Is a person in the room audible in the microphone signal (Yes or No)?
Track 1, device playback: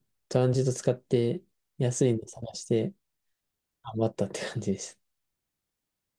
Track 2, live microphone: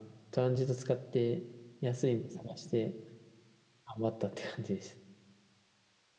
Yes